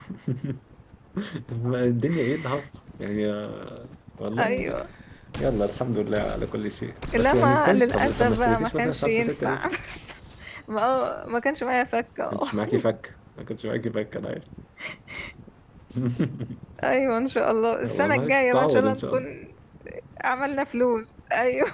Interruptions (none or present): present